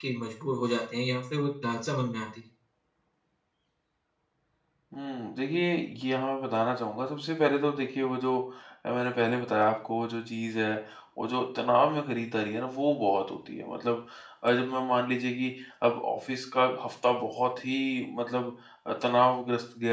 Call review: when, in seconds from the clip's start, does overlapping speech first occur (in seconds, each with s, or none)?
none